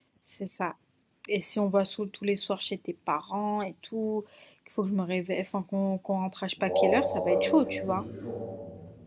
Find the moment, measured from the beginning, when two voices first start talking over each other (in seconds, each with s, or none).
6.6 s